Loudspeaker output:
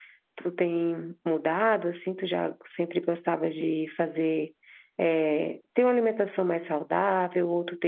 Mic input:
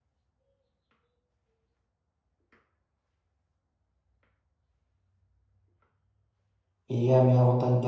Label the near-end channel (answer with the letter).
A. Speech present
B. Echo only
A